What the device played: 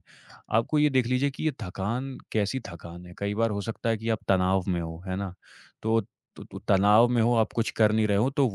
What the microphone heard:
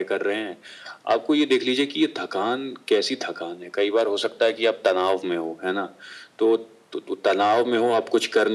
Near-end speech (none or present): none